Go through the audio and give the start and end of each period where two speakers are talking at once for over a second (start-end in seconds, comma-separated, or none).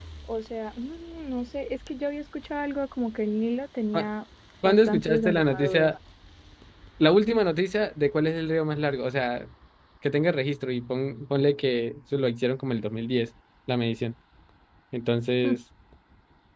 4.6-5.9